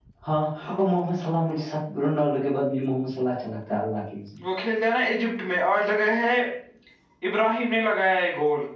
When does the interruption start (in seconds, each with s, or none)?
none